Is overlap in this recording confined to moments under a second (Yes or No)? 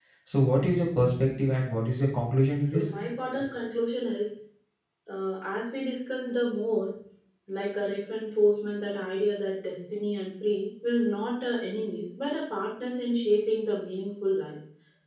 Yes